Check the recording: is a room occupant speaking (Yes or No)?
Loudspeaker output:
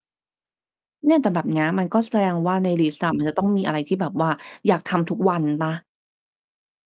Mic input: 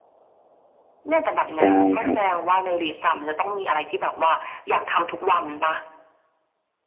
Yes